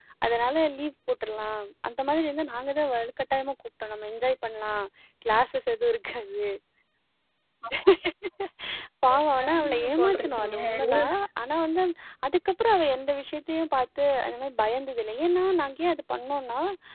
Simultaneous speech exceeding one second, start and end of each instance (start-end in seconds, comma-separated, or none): 9.4-11.1